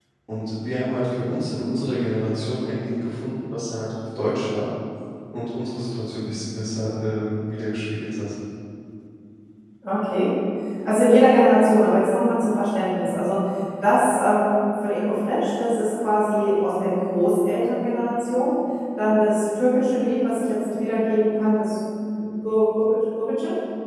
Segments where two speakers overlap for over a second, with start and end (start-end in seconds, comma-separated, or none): none